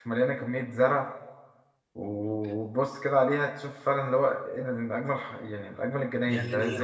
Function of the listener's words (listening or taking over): taking over